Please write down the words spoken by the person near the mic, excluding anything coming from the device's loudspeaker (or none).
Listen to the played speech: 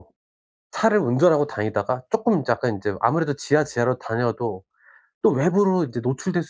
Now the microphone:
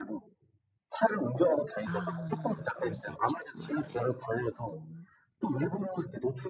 아. 그럴 수 있죠. 맞아요. 음.